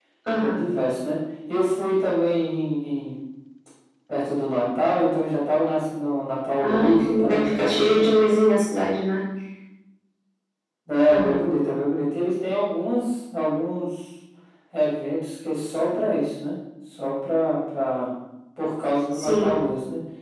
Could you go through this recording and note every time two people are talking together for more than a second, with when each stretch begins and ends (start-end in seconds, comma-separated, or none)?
6.6-8.3